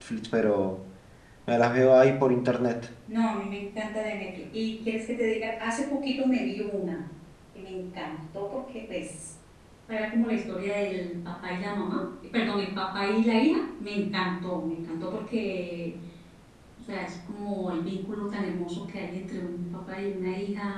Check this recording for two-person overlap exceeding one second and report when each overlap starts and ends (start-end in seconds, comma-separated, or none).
none